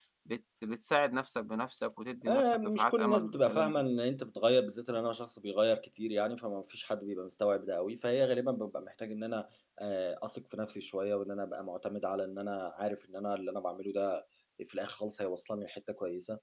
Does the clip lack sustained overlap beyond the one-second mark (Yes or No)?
No